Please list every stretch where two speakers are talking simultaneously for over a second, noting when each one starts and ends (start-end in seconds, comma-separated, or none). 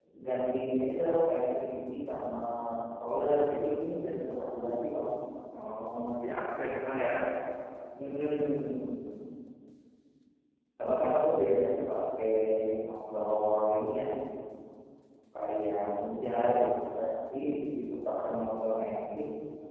none